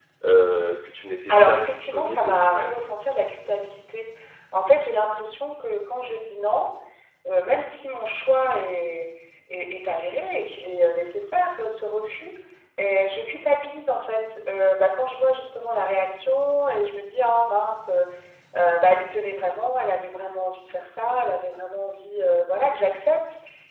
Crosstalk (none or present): present